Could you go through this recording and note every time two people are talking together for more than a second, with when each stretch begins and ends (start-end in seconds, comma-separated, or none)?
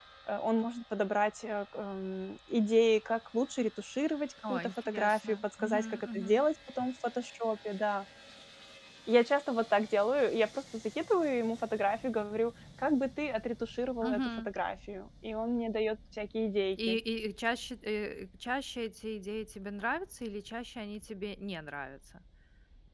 4.5-6.3